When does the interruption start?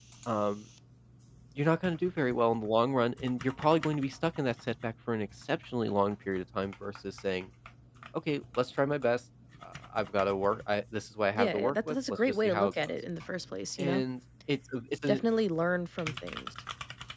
11.3 s

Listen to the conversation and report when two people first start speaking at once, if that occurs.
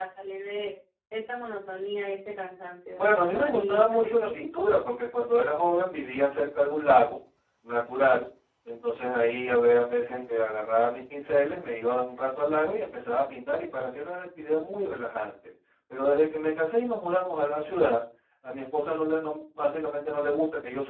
2.9 s

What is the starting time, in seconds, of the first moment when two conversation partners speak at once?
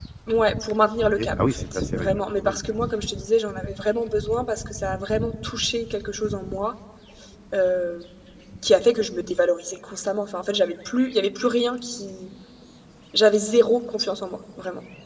1.2 s

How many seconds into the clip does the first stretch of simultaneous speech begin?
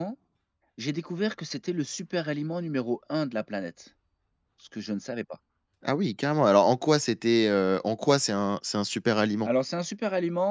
none

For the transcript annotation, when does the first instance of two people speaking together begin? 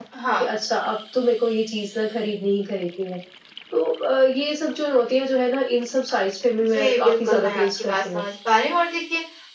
6.7 s

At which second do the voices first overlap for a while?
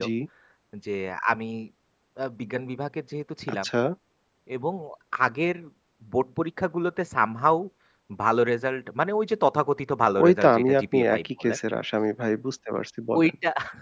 10.2 s

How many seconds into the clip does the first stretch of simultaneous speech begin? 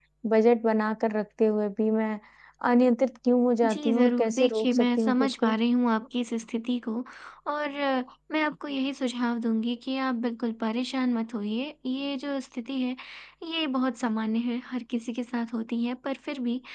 3.6 s

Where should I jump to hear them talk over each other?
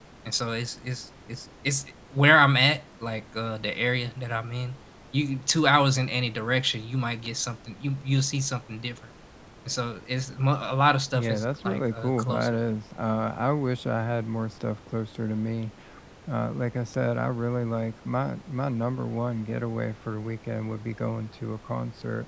11.1 s

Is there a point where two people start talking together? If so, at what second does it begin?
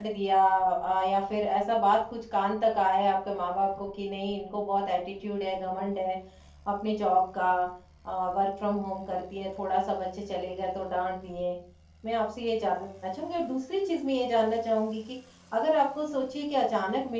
none

